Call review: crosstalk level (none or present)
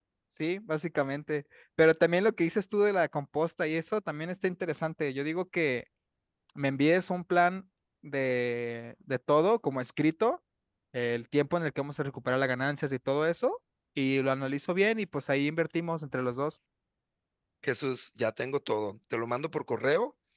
none